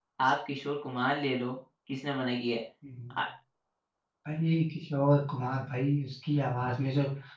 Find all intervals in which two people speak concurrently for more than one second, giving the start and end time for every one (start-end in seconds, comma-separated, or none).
none